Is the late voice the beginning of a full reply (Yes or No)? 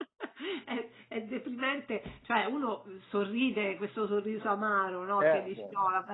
No